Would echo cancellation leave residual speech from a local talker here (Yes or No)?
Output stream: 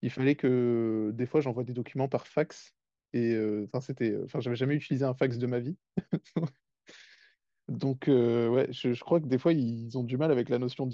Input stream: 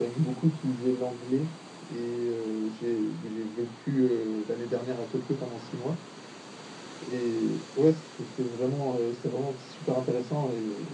Yes